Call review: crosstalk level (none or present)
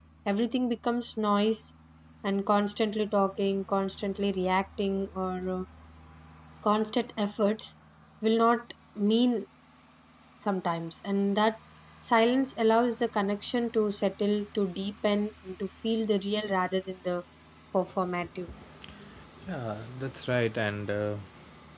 none